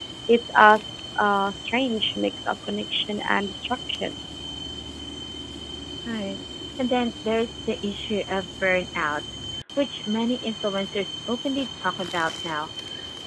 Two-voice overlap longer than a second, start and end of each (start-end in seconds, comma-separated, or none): none